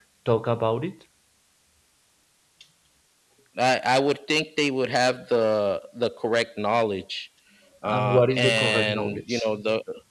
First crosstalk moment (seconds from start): 7.8 s

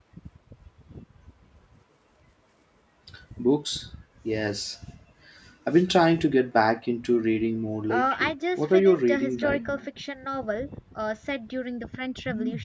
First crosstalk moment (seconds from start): 7.9 s

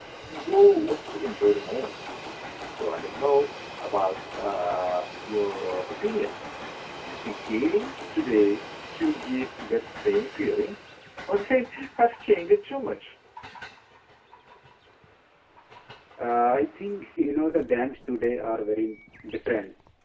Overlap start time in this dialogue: none

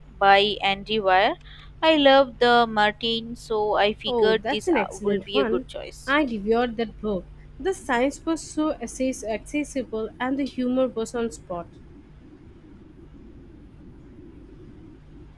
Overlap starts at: 4.1 s

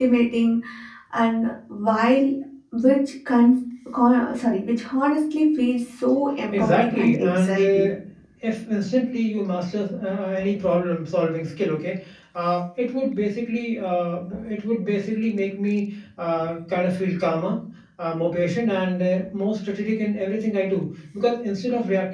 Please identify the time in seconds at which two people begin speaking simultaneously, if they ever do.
6.5 s

